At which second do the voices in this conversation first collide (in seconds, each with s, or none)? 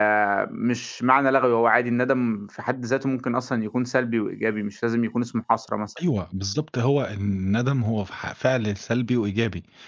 none